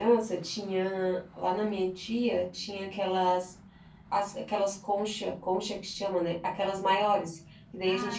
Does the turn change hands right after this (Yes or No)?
No